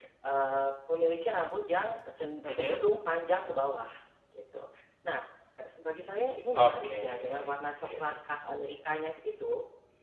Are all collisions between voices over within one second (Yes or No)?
No